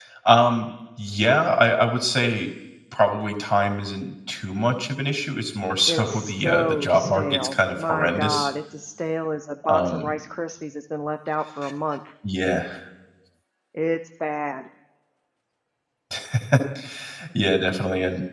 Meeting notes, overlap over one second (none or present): present